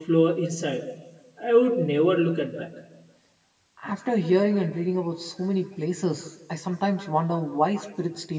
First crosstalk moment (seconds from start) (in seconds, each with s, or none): none